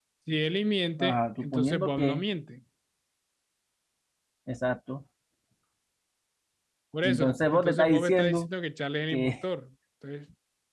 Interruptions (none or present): present